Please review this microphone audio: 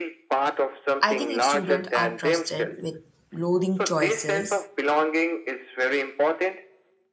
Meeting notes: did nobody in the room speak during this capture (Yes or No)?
No